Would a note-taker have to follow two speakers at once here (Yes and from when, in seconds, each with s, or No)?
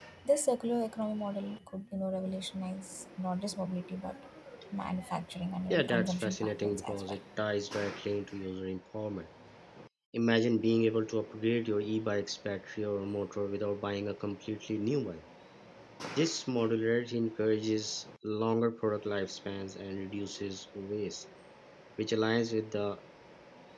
Yes, from 5.7 s